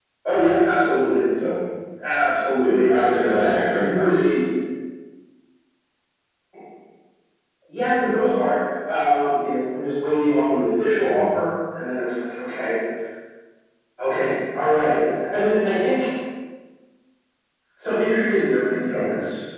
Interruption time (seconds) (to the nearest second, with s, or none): 3 s